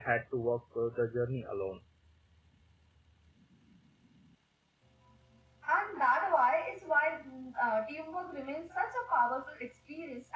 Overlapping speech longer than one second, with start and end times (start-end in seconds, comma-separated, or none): none